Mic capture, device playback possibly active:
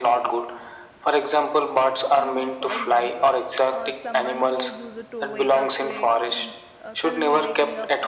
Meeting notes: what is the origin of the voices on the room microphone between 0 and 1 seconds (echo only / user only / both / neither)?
echo only